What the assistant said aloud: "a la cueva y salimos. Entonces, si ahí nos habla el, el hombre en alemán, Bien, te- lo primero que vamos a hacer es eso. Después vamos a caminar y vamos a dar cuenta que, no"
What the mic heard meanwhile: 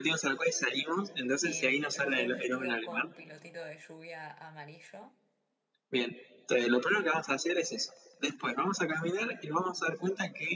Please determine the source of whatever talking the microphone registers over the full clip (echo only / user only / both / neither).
both